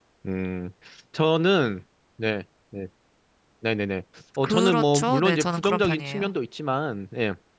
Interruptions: present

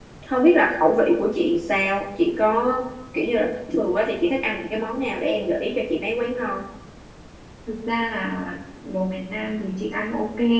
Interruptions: none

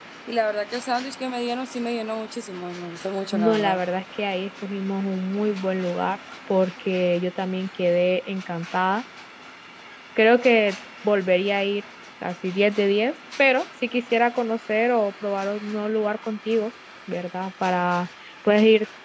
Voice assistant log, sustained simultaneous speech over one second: none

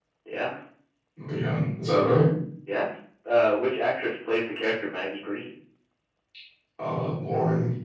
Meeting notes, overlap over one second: none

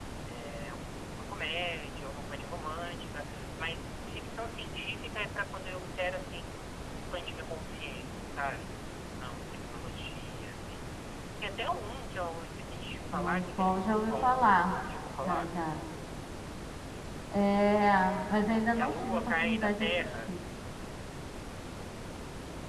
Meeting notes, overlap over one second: present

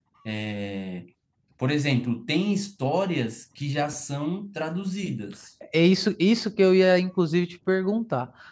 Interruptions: none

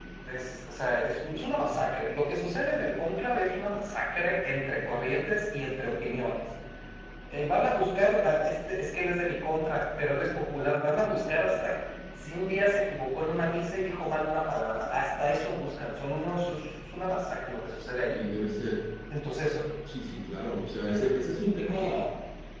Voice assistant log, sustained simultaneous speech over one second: none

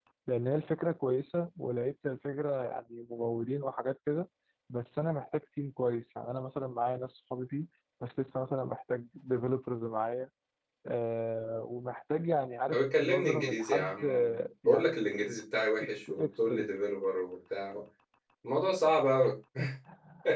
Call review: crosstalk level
present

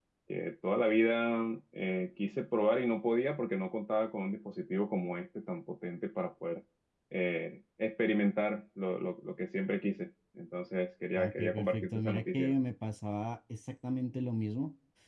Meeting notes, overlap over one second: present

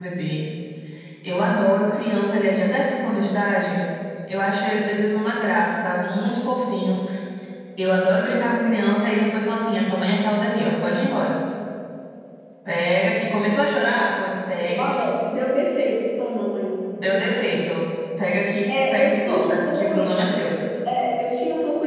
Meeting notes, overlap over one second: present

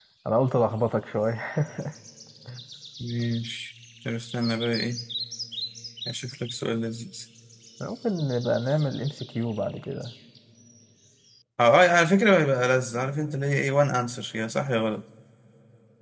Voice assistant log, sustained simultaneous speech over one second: none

